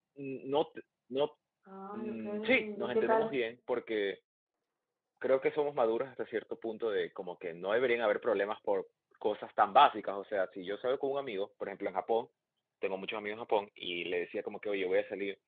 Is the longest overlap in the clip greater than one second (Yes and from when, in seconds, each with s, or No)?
Yes, from 1.9 s